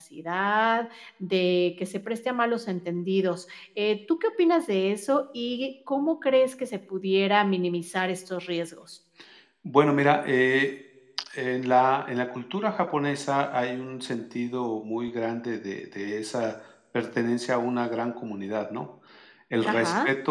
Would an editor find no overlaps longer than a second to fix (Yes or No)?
Yes